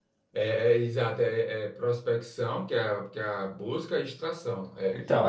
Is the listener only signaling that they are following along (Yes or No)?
No